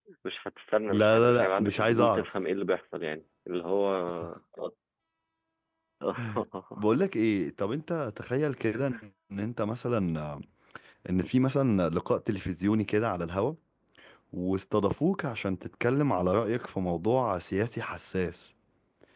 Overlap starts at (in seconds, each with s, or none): 0.9 s